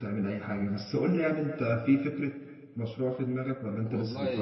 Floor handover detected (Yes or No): Yes